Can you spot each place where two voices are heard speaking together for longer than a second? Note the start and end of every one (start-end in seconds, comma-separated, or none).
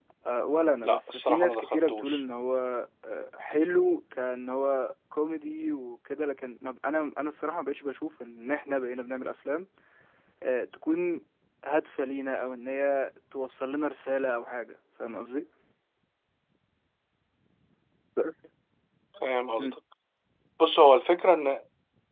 0.8-2.2